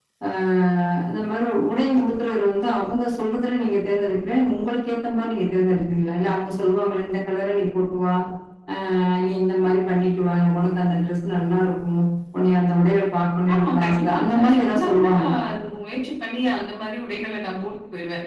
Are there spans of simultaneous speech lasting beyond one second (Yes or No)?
Yes